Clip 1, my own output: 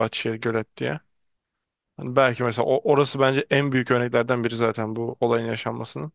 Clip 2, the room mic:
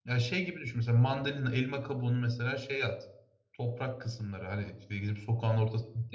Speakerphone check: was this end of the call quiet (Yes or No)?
No